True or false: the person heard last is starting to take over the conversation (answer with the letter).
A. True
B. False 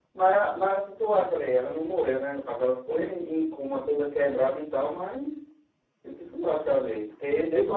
A